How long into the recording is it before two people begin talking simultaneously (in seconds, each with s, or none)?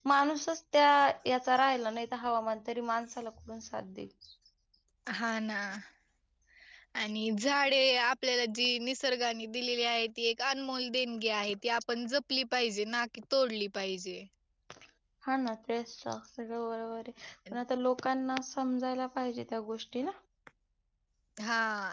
none